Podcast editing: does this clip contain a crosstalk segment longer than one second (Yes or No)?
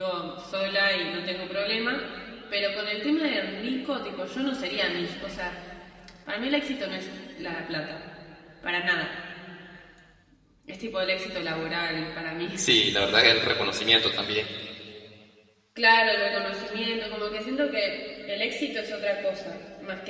No